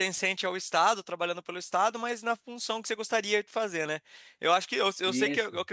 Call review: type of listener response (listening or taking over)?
listening